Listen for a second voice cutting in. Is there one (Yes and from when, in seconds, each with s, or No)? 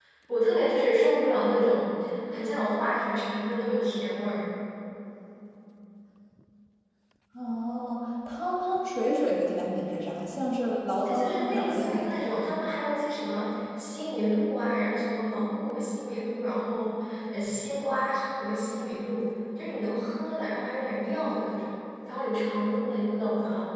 Yes, from 11.1 s